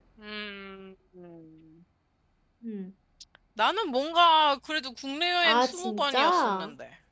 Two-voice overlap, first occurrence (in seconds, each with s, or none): 5.4 s